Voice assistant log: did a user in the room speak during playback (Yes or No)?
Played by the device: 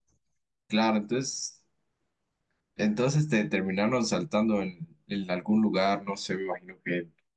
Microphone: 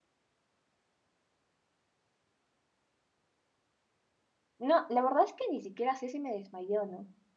Yes